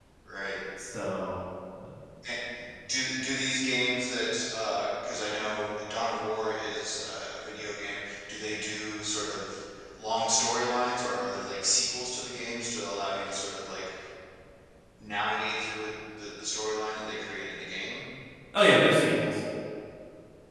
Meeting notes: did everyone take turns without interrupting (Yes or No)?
Yes